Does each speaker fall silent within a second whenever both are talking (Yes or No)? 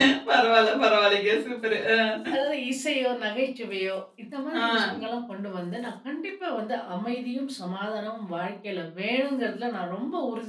Yes